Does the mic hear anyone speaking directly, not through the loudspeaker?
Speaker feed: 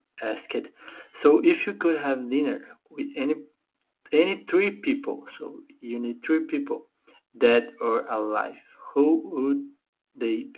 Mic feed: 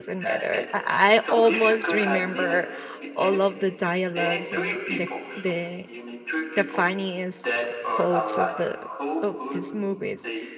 Yes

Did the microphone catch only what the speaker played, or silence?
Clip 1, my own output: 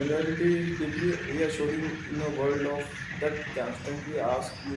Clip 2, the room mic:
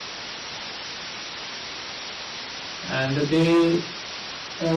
No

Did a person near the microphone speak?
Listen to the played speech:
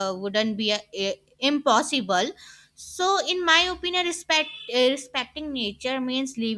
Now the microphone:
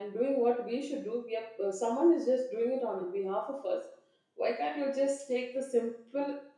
Yes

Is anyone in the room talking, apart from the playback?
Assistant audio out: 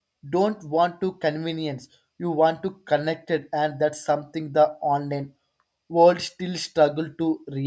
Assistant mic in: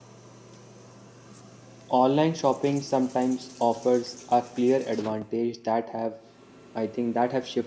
Yes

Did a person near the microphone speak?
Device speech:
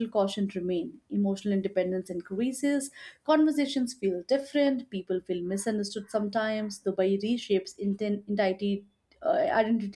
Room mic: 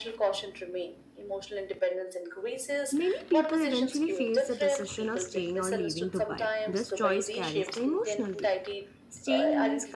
Yes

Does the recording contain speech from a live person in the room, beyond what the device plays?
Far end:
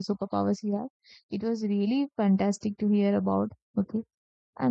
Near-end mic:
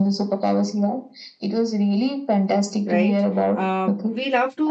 Yes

